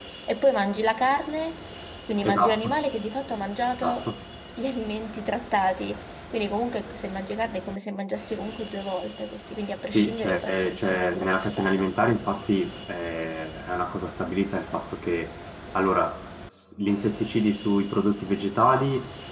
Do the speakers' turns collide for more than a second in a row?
Yes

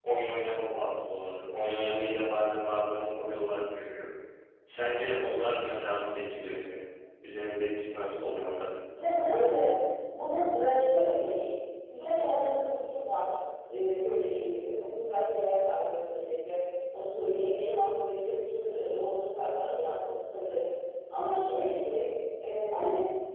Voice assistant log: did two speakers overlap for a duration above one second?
No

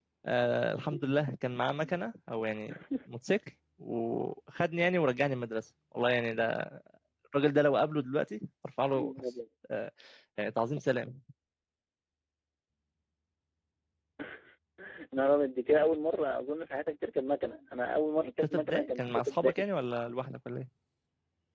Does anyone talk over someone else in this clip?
Yes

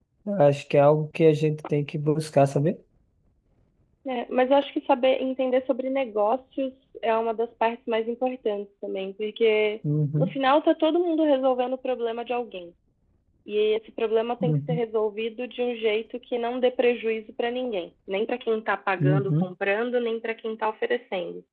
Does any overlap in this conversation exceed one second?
No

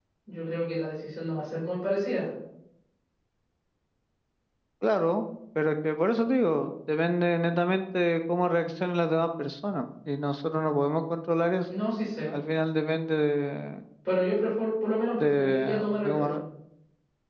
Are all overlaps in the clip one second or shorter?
No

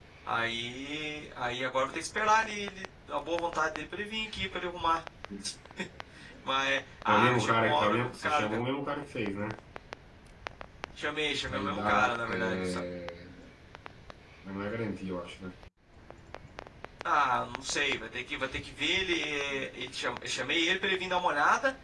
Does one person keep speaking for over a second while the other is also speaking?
Yes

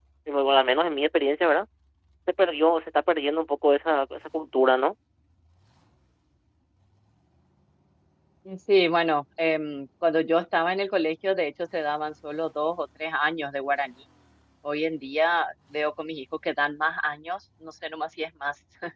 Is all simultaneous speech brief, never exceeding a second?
Yes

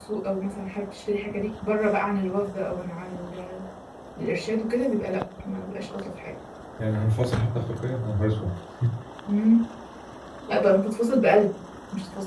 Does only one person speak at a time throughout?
Yes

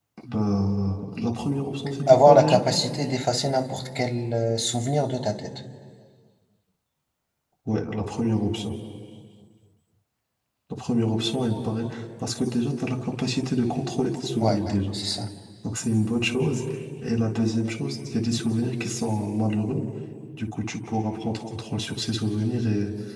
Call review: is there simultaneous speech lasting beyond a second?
No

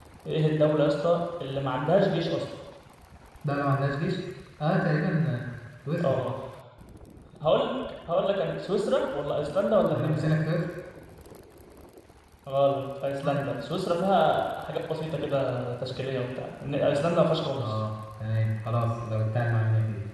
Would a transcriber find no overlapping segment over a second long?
Yes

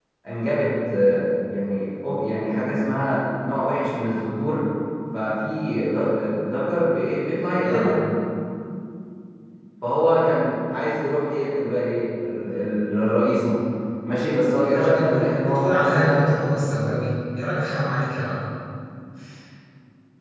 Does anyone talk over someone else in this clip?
Yes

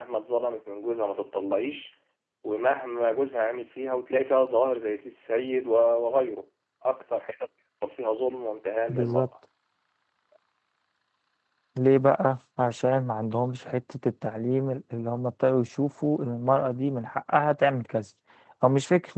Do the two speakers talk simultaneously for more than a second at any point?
No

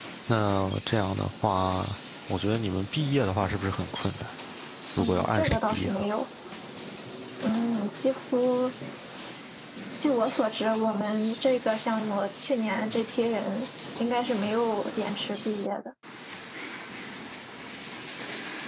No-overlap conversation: No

